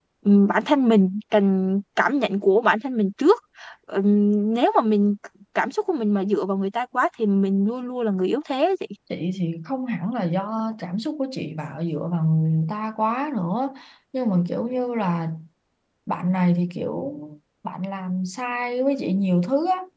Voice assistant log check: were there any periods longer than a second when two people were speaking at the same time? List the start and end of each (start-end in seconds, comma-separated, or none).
none